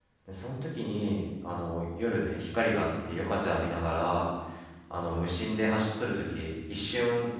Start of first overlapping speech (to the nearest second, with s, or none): none